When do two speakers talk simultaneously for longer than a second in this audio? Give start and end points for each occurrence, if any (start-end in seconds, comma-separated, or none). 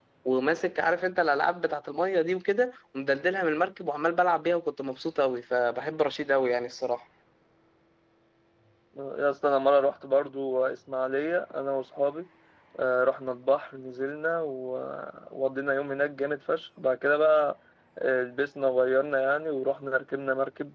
none